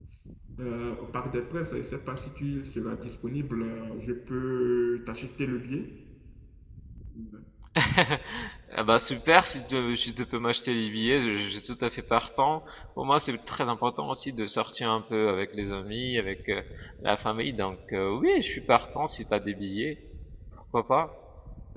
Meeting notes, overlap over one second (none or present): none